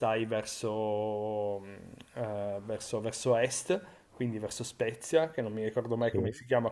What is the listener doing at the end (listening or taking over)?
listening